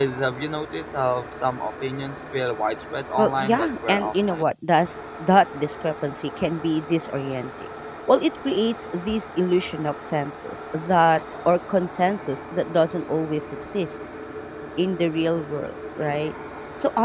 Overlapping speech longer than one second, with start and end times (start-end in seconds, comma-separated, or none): 3.2-4.4